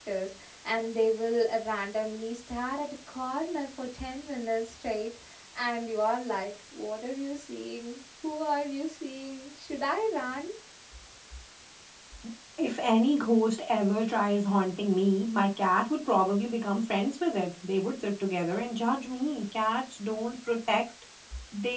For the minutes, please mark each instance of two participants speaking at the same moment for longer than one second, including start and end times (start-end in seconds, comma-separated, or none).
none